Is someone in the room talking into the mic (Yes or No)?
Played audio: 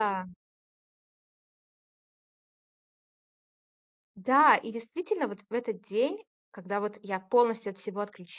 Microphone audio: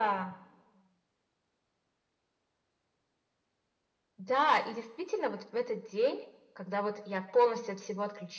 No